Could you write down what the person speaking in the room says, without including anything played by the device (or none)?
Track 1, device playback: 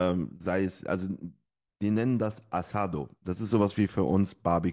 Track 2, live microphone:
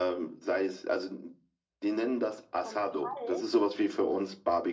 vom Kalt